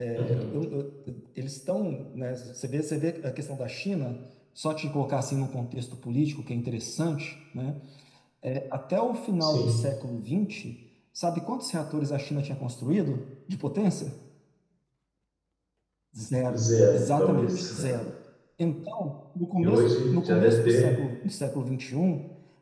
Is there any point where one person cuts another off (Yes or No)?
Yes